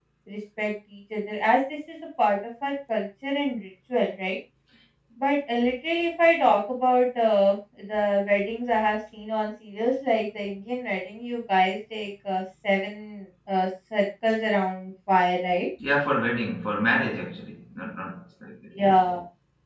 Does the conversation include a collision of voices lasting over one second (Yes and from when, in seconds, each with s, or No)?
No